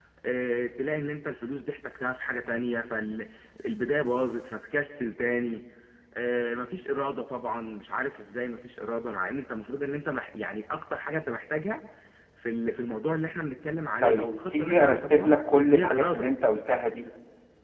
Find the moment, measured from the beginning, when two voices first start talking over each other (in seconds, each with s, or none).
14.0 s